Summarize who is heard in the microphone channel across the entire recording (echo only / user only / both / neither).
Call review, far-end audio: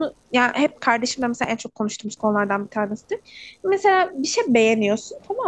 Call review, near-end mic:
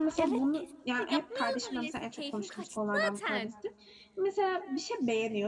both